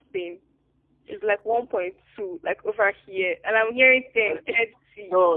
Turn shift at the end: Yes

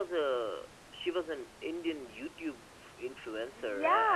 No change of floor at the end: No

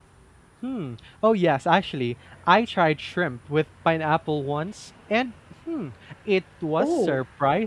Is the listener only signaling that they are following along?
Yes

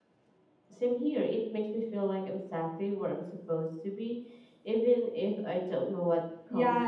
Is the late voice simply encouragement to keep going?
No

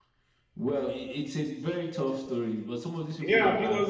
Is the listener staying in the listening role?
No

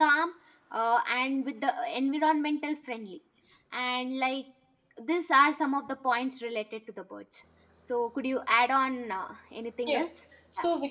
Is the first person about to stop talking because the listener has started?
Yes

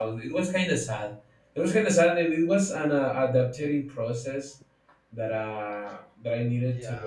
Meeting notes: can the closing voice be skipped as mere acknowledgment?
No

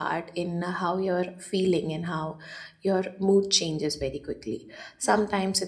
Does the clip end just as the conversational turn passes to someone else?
No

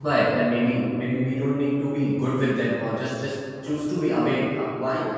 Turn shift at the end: Yes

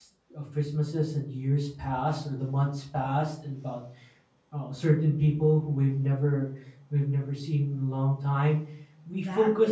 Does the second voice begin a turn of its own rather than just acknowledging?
No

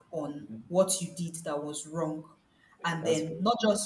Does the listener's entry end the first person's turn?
No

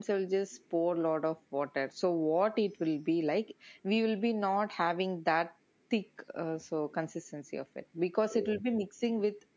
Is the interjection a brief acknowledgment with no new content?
Yes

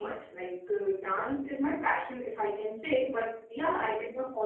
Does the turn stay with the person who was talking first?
Yes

